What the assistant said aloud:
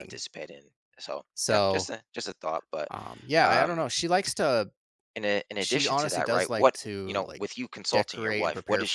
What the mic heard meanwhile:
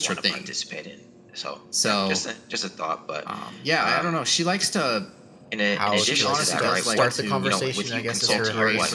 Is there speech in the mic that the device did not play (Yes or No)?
Yes